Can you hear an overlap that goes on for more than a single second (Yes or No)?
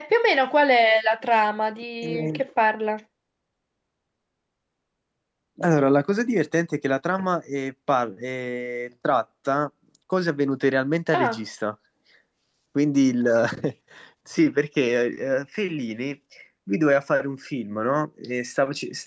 No